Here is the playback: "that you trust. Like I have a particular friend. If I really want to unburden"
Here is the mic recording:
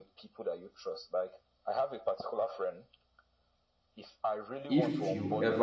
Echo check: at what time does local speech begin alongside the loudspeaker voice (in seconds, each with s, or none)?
4.7 s